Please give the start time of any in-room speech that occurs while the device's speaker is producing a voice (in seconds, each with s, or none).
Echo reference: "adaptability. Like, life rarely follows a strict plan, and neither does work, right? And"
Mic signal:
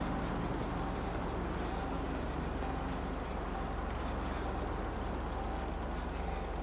none